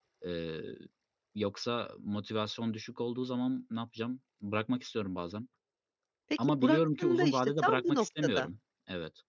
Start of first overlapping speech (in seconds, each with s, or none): 6.4 s